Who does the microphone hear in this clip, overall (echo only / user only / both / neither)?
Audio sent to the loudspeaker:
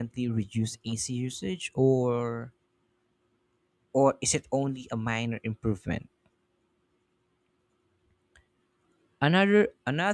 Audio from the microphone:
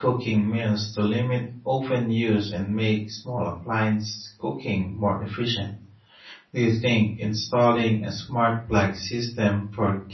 user only